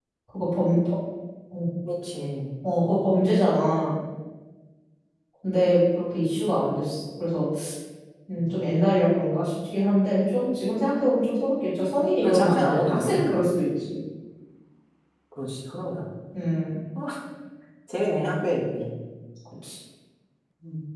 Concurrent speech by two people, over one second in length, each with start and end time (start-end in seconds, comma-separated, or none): 12.2-13.5